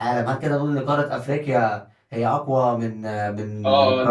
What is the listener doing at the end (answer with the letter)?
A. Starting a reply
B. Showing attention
A